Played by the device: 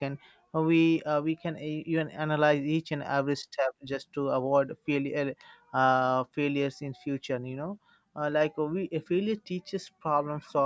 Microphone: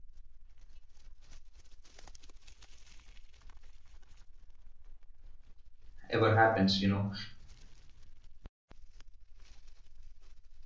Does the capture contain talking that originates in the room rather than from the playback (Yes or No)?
Yes